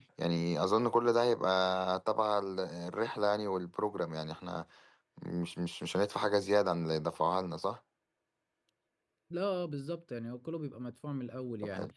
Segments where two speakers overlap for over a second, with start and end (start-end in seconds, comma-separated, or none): none